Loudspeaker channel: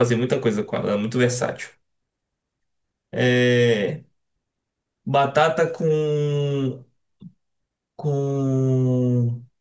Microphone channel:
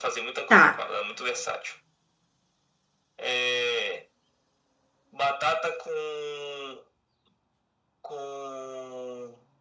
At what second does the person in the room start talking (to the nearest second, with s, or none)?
0 s